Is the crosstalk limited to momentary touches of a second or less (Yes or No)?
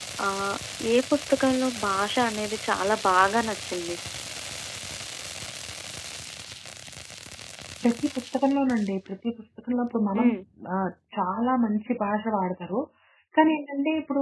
Yes